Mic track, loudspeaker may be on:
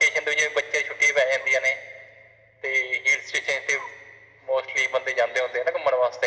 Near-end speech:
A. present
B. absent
B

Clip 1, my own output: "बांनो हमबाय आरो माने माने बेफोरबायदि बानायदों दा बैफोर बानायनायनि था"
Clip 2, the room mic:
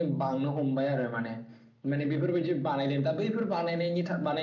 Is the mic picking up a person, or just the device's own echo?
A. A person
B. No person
B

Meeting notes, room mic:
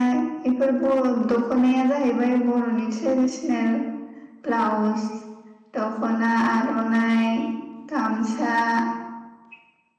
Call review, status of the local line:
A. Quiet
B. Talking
A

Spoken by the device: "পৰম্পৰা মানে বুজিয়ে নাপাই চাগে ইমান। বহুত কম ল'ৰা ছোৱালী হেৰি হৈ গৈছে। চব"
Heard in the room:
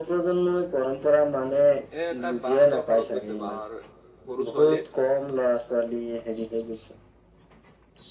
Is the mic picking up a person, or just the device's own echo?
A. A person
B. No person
A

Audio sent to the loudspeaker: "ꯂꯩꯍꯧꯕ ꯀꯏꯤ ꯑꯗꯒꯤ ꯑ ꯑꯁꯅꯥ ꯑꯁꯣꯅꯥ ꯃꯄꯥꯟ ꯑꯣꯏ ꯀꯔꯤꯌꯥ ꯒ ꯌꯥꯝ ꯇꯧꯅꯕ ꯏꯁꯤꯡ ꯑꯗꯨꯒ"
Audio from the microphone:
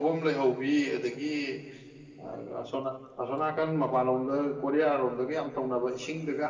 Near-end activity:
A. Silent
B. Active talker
A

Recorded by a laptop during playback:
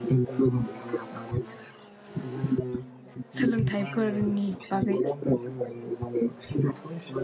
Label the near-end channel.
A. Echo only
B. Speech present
B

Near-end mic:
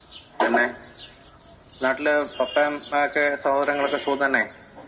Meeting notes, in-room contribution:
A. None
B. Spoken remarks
A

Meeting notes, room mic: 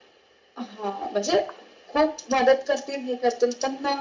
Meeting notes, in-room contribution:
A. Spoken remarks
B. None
B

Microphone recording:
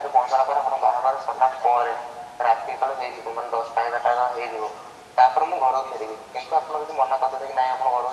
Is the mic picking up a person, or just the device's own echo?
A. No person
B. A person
A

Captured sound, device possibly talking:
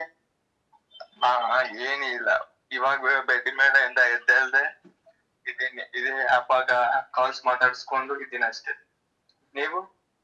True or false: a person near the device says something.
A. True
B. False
B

